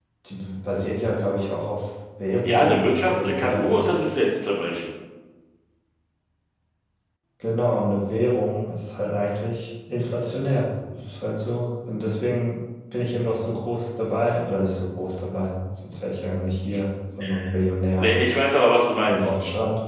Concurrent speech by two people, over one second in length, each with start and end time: 2.4-3.9

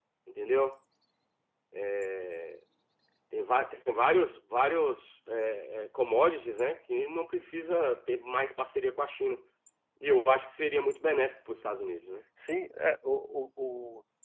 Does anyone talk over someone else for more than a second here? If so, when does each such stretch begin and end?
none

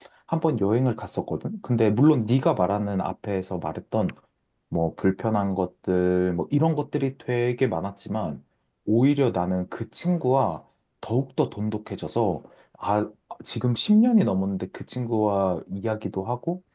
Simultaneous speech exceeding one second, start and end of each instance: none

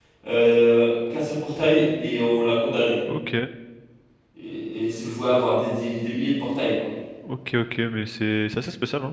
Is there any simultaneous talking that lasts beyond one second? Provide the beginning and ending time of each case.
none

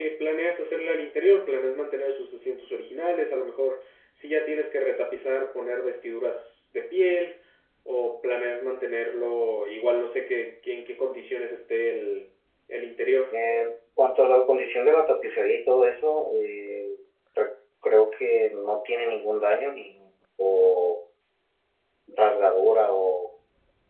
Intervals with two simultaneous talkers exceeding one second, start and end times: none

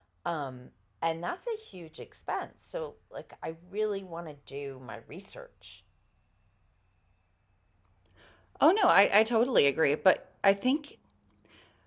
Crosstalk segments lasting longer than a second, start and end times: none

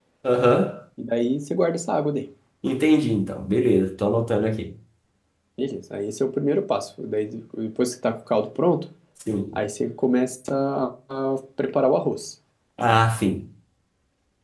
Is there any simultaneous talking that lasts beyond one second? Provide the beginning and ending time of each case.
none

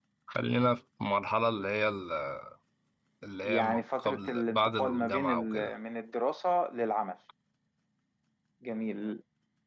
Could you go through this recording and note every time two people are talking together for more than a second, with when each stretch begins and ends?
3.4-5.7

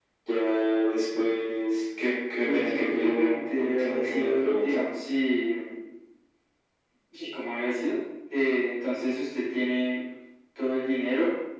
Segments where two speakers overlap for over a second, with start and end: 2.4-4.8

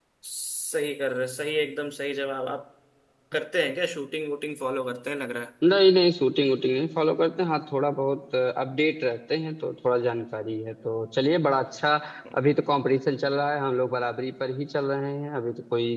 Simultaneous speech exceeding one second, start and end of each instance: none

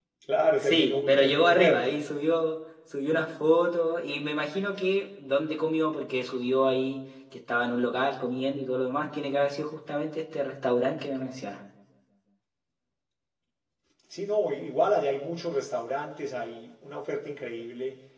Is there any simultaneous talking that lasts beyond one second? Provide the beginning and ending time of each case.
0.6-2.0

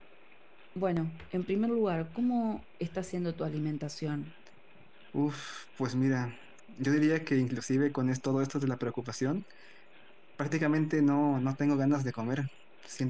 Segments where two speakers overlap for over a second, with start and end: none

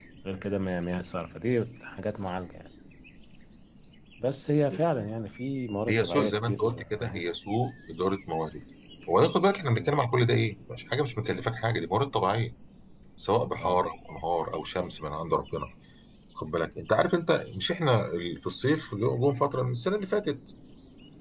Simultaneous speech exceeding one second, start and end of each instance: 5.9-7.3

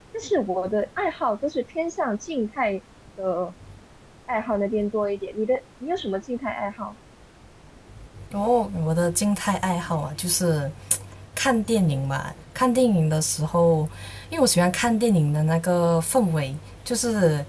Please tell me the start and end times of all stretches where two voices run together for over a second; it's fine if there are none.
none

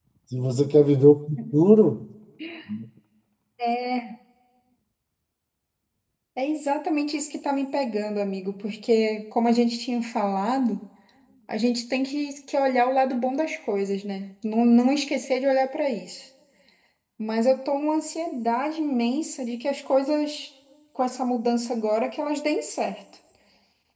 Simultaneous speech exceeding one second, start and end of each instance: none

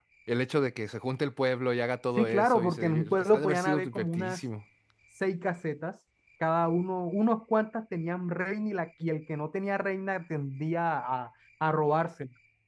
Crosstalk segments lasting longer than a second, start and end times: 2.2-4.4

